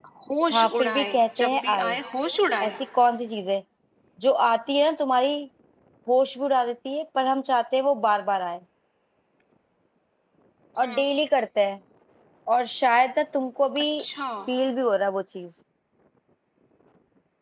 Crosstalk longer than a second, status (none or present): present